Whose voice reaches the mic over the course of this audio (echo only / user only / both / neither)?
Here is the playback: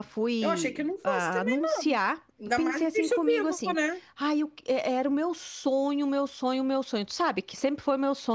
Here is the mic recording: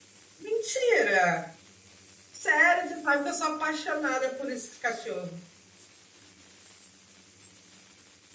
user only